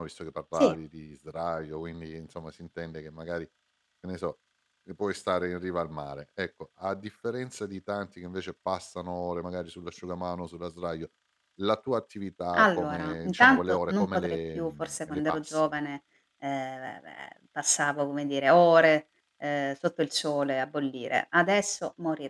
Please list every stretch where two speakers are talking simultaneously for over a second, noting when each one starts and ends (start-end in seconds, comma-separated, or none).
12.5-15.6